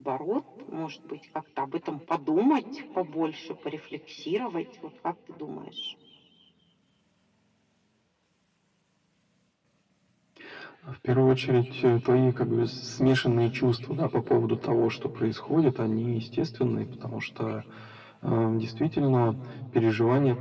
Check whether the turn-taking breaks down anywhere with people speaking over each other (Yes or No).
No